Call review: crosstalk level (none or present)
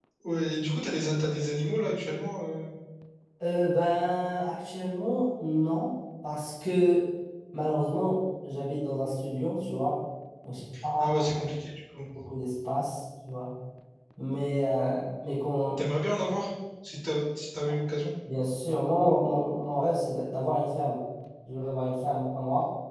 none